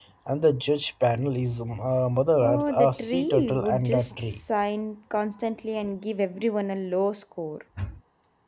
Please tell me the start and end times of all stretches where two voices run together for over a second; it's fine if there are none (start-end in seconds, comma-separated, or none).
2.4-4.4